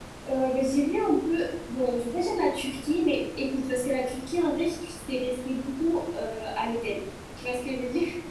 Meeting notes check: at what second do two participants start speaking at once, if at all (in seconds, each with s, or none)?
none